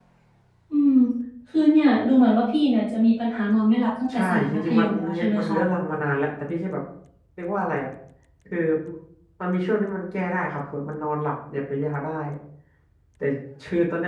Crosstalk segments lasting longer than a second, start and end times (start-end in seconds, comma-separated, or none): 4.1-5.6